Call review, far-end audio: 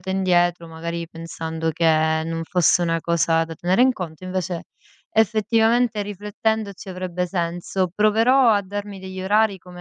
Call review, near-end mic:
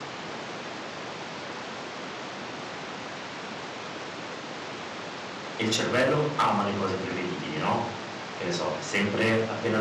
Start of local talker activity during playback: 5.6 s

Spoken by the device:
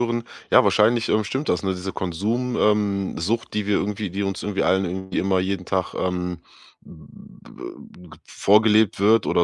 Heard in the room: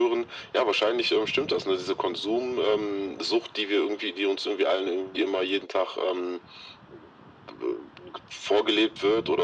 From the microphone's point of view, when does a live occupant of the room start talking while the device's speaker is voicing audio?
none

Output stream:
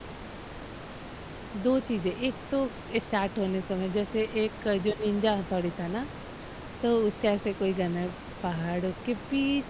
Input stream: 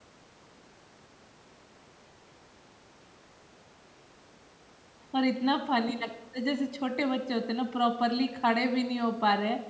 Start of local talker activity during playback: 5.2 s

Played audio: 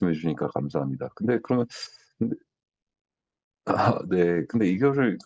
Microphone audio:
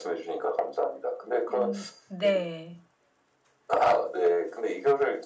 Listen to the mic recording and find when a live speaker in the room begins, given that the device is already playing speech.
1.5 s

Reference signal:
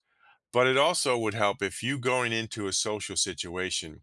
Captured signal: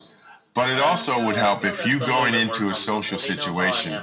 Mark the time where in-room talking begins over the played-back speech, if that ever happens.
0.7 s

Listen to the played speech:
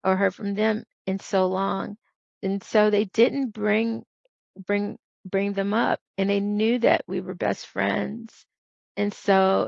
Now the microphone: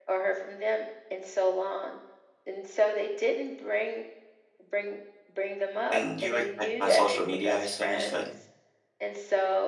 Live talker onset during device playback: 5.9 s

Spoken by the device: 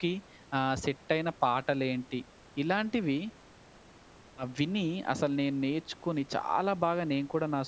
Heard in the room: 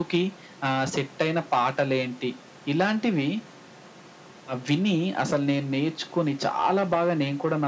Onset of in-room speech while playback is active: none

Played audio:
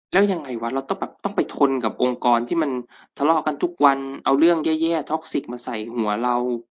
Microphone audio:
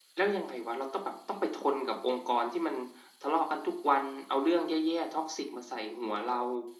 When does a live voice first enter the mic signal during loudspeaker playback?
none

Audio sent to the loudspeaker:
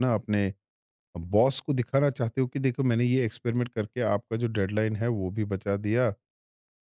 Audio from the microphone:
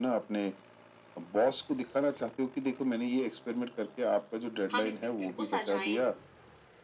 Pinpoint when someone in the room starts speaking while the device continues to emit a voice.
4.7 s

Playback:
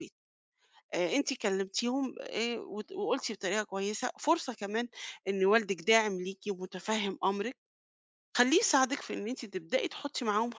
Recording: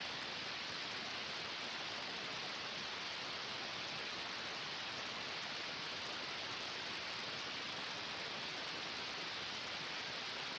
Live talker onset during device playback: none

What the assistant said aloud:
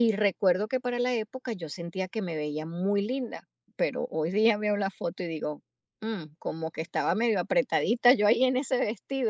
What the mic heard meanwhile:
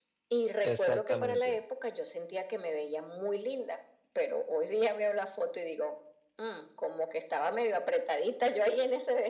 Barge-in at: 0.6 s

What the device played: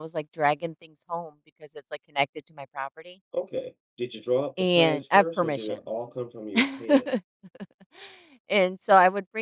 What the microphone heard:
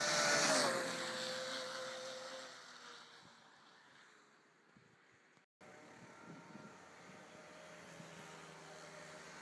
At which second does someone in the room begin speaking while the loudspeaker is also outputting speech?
none

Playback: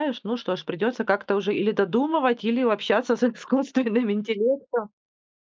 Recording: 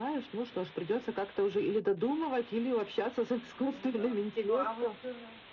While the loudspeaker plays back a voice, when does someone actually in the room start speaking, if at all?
3.7 s

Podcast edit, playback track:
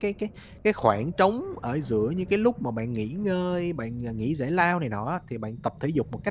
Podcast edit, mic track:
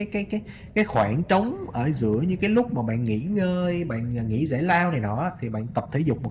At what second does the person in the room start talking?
none

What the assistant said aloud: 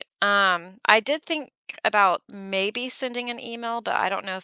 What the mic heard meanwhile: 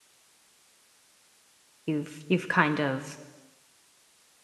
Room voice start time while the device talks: 1.9 s

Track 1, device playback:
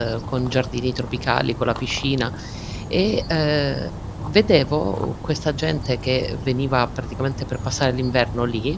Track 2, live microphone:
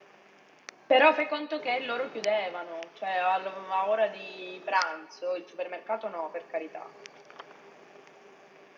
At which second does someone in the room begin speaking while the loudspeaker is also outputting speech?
0.8 s

